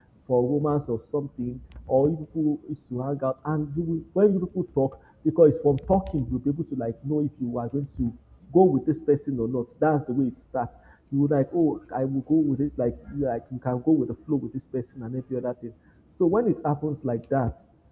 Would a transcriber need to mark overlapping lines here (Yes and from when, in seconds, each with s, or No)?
No